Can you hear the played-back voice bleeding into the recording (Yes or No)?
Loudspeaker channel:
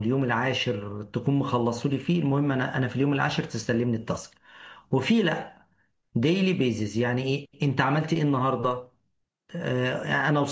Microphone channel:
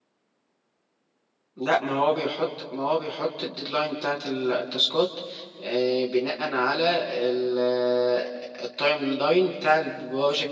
No